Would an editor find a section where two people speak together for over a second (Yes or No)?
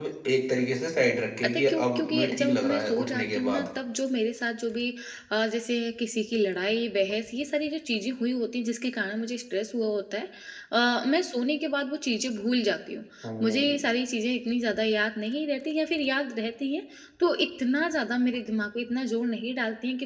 Yes